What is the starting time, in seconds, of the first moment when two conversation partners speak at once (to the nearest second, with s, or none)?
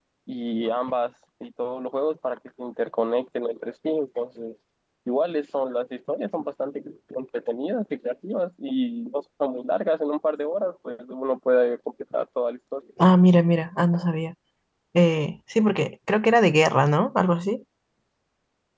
none